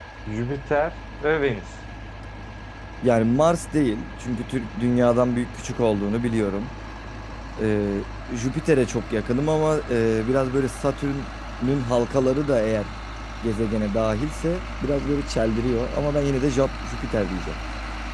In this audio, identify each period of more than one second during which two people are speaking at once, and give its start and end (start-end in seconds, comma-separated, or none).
none